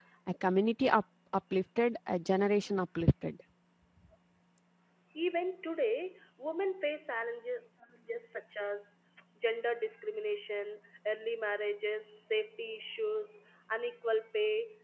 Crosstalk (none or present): none